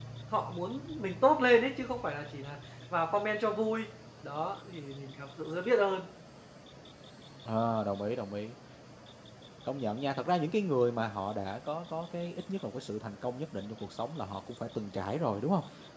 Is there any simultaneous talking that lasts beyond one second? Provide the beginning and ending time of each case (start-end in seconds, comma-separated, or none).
none